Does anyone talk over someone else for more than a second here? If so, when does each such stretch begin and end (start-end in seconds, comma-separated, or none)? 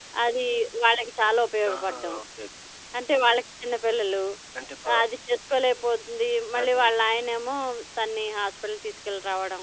none